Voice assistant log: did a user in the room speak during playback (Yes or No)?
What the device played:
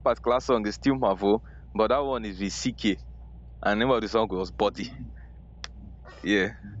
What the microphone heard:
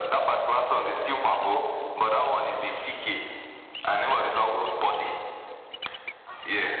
No